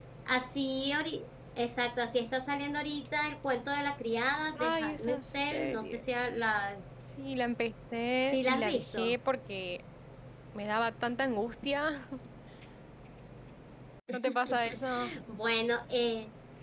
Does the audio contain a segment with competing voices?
Yes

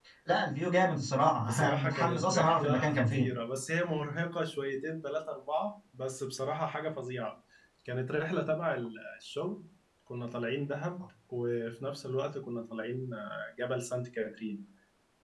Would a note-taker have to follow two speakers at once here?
Yes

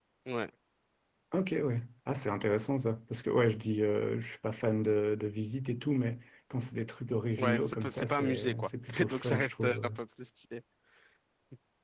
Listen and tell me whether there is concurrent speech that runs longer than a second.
Yes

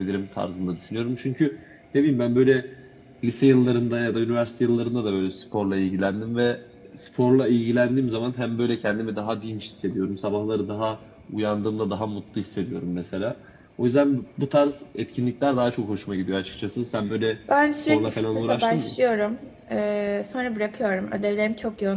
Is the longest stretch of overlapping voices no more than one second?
No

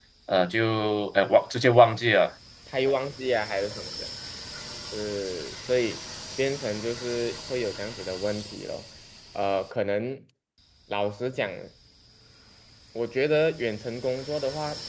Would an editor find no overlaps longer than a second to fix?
Yes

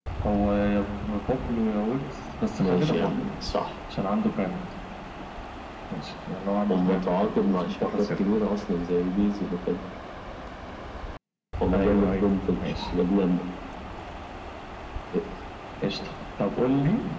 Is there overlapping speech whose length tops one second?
Yes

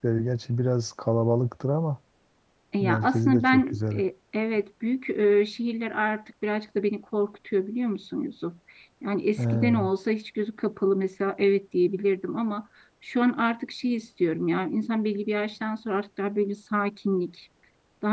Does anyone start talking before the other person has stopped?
Yes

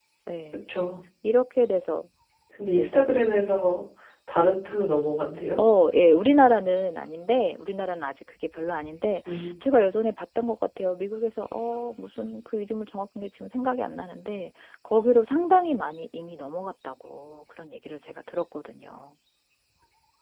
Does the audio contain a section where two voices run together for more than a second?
No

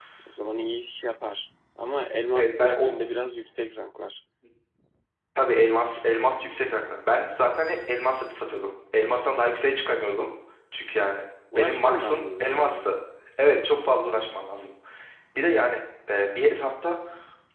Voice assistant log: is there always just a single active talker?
No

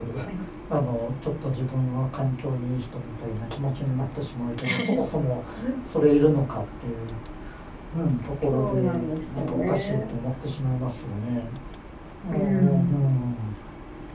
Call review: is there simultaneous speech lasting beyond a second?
Yes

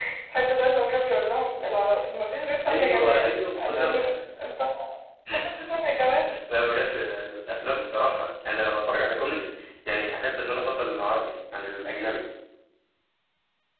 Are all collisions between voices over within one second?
No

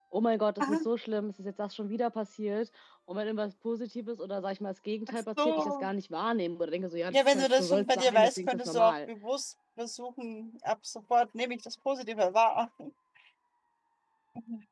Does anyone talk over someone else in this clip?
Yes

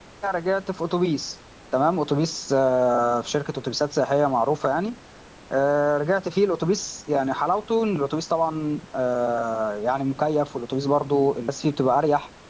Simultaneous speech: No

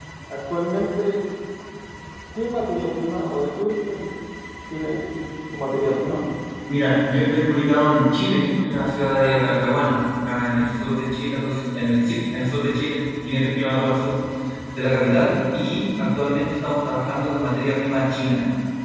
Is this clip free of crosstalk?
Yes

